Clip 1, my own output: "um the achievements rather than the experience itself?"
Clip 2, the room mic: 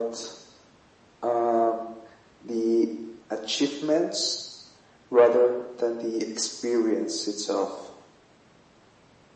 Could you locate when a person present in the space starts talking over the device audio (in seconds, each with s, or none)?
none